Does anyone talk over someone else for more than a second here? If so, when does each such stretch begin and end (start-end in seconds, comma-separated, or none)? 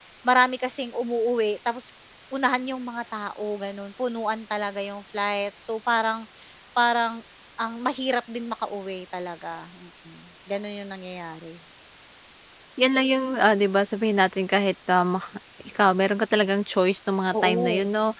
none